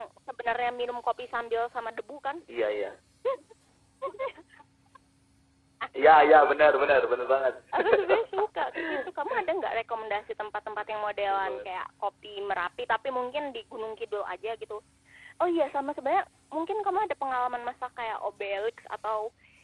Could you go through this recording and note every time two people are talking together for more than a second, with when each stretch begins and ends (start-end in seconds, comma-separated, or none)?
none